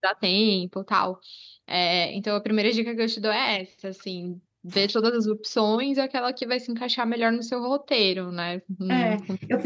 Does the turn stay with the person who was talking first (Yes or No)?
No